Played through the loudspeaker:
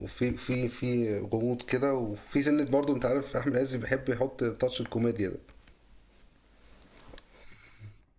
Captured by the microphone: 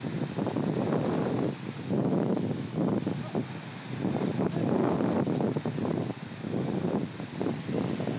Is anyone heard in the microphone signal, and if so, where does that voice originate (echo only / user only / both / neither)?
neither